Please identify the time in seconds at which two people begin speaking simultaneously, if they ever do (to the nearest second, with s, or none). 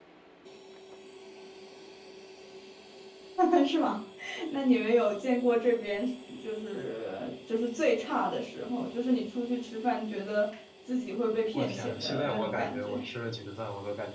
12 s